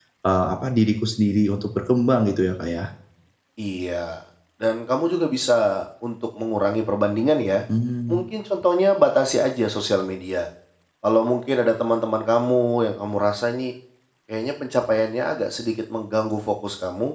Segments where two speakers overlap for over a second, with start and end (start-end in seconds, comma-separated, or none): none